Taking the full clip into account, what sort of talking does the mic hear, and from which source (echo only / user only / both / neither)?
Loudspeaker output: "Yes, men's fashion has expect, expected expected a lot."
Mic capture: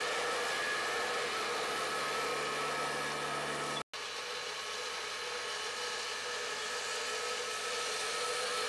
neither